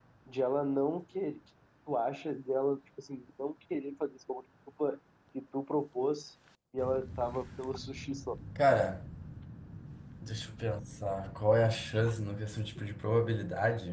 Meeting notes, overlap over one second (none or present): none